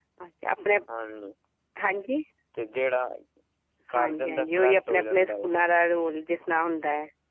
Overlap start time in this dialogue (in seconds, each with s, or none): 4.0 s